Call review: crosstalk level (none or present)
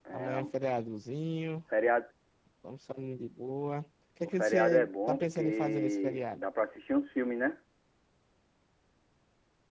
present